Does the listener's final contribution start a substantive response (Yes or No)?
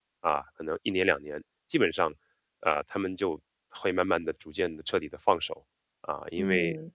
No